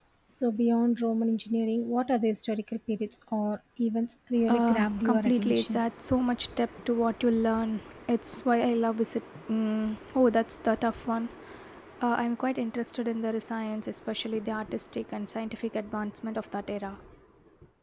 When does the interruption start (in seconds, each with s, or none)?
4.5 s